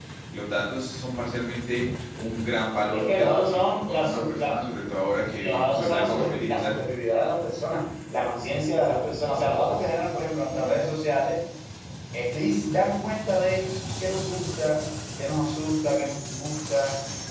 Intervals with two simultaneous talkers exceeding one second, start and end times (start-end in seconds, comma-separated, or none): 2.9-4.6, 5.4-6.7